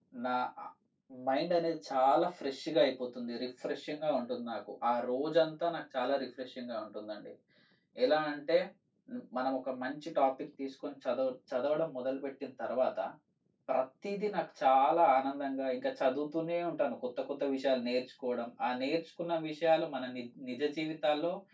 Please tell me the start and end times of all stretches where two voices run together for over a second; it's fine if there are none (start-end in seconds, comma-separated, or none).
none